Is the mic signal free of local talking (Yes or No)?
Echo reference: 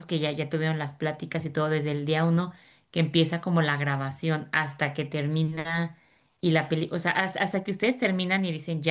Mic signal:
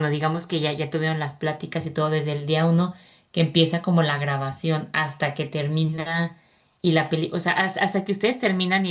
Yes